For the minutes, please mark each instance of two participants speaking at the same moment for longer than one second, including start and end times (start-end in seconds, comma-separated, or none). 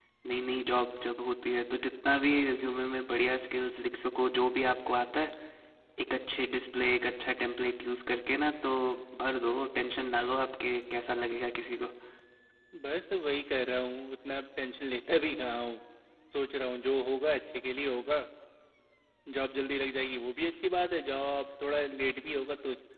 none